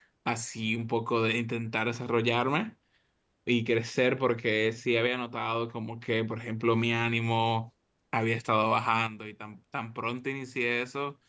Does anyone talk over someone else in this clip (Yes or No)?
No